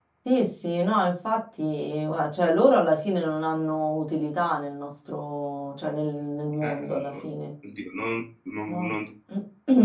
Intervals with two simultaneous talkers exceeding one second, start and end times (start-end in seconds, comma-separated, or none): none